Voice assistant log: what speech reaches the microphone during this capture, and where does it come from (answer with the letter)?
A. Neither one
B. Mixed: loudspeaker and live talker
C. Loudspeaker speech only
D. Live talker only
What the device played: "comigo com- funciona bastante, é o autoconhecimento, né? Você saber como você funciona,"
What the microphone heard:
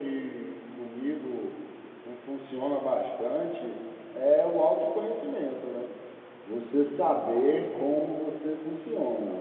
C